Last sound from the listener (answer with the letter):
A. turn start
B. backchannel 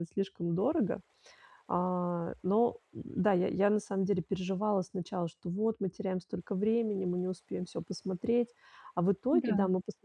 B